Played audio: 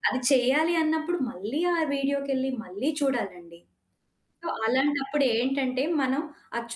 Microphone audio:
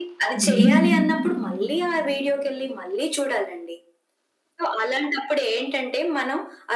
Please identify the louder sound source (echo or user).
user